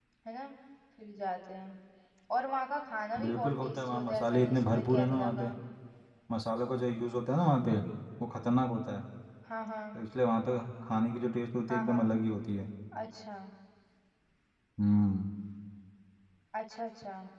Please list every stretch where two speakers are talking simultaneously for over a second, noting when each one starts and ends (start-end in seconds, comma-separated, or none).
3.2-5.5